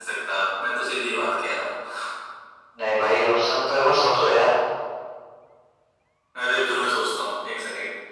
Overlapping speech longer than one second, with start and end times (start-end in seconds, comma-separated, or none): none